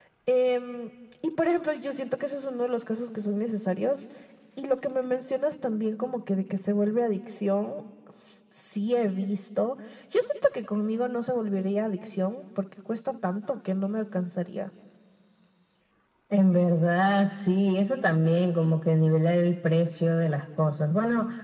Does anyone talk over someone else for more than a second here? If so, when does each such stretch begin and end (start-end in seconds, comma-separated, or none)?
none